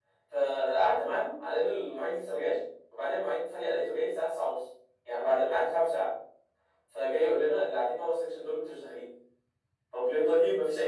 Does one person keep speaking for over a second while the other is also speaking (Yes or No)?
No